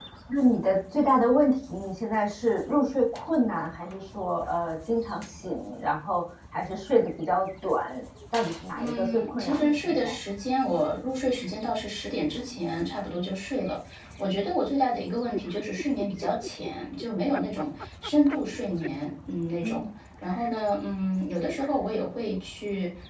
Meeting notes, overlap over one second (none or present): present